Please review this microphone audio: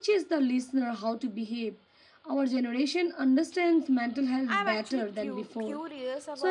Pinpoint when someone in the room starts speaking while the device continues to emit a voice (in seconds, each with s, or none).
4.5 s